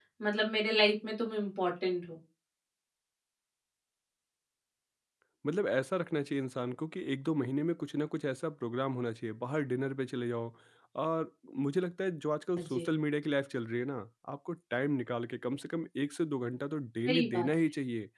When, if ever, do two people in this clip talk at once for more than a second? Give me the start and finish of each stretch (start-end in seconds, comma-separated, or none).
none